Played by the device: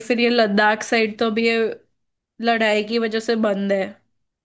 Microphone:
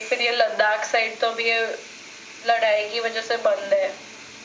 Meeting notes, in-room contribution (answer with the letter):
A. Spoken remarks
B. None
B